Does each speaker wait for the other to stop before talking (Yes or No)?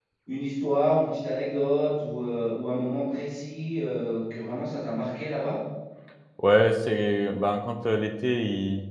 Yes